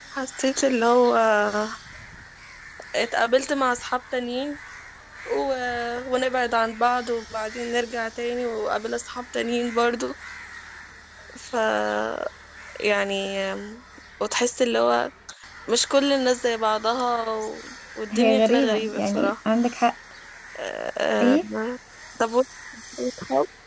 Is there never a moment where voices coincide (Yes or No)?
No